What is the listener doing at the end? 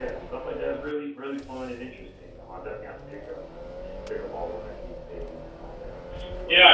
taking over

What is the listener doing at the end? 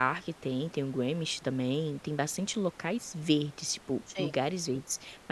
listening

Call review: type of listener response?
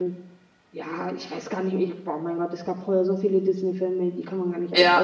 taking over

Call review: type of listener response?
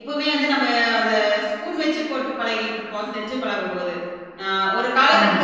listening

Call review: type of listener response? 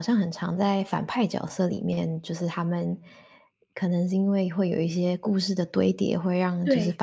listening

